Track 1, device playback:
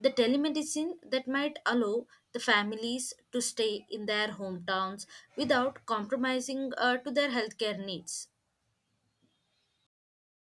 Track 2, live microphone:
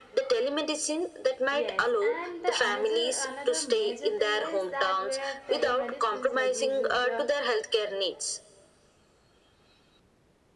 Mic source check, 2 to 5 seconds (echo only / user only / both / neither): both